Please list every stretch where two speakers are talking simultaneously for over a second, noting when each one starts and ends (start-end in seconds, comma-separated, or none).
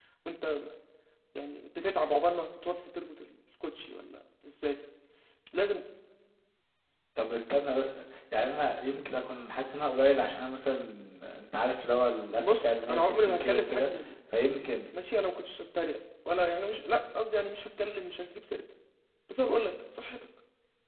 12.4-13.9